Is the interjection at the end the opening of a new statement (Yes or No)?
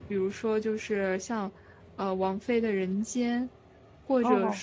No